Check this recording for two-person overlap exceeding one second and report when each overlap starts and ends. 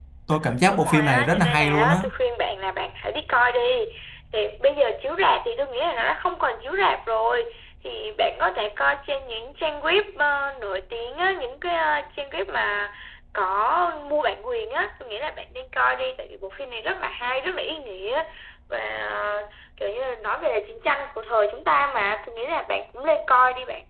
0.7-2.0

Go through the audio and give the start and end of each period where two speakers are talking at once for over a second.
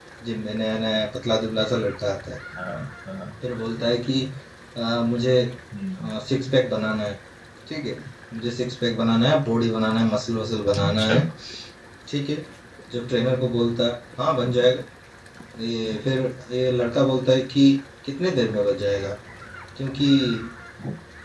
none

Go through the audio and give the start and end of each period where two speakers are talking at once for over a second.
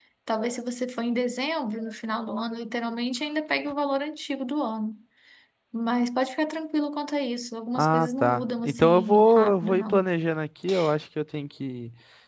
7.8-10.0

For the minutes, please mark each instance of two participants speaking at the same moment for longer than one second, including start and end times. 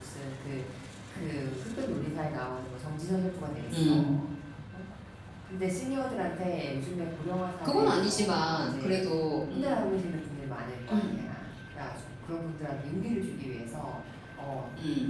7.6-9.0

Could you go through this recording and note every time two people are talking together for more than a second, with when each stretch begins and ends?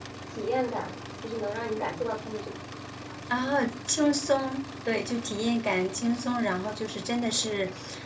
none

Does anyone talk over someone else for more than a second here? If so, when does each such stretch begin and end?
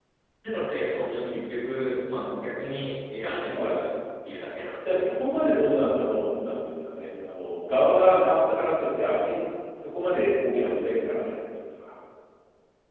none

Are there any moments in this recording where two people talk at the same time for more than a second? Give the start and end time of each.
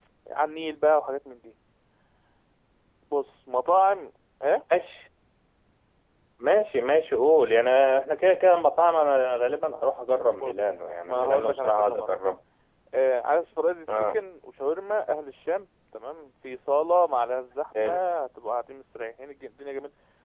10.4-12.1

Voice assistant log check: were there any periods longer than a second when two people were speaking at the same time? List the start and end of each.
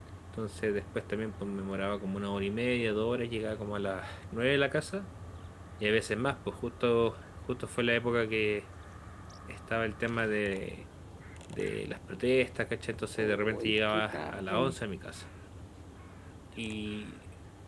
13.2-14.8

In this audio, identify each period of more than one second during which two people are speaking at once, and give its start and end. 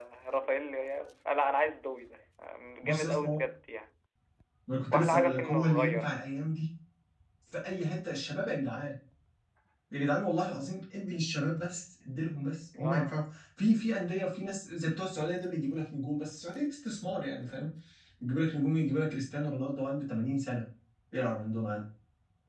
4.9-6.4

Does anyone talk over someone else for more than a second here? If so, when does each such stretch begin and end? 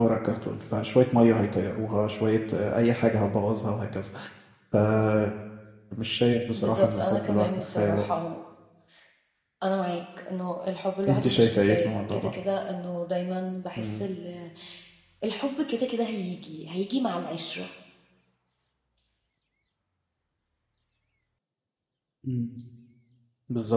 6.5-8.0, 11.1-12.3

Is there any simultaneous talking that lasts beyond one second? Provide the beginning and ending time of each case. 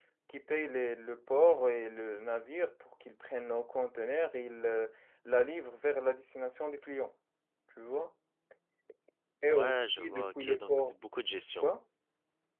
9.5-10.9

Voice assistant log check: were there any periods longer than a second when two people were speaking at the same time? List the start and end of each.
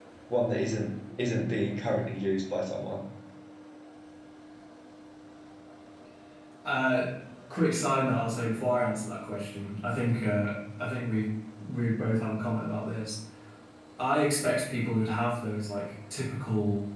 none

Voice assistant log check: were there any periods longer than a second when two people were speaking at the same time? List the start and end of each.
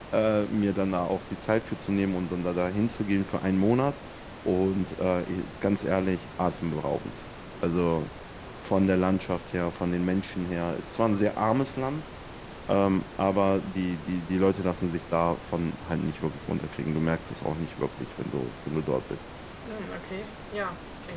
none

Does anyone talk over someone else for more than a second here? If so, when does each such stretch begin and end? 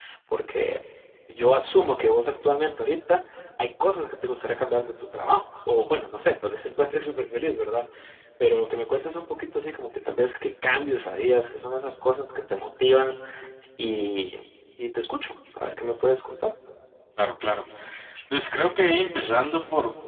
none

